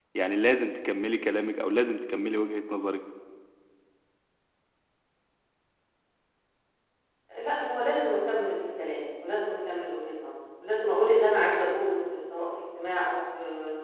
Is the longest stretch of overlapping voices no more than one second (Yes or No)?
Yes